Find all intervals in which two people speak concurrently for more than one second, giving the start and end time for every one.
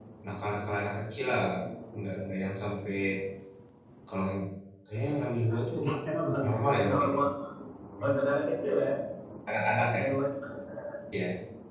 none

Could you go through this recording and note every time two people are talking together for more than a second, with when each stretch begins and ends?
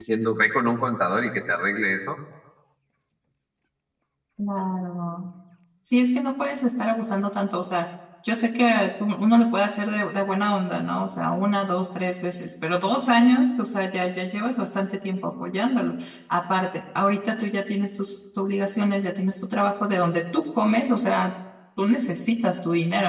none

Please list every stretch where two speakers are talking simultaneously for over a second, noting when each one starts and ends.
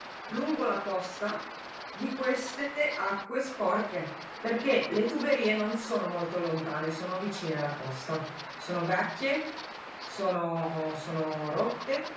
none

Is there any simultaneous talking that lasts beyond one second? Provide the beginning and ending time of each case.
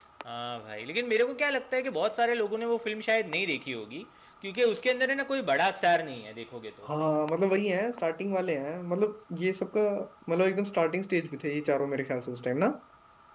none

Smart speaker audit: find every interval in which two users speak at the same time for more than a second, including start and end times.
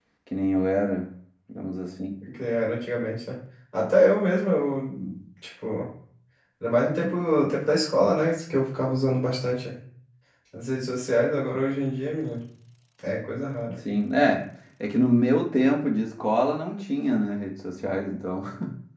none

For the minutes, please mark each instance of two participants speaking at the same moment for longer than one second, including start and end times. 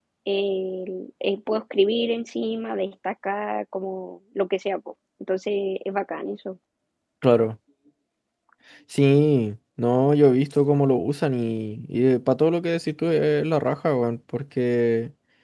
none

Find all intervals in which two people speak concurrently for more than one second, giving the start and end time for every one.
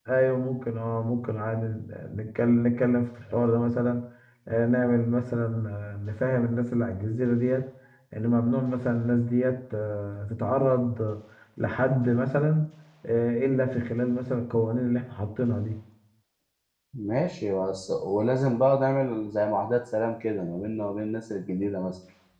none

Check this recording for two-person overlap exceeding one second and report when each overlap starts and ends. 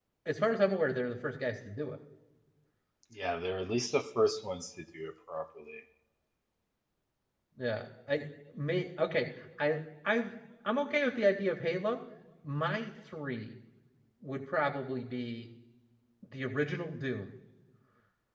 none

